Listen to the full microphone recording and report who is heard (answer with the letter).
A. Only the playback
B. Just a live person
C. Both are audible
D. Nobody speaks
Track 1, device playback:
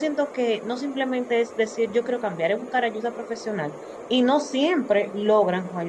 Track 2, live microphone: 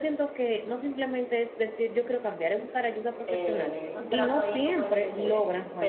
C